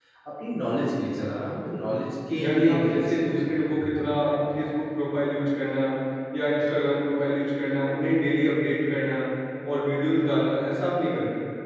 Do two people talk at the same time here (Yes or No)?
Yes